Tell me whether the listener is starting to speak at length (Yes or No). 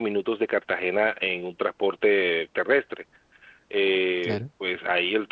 No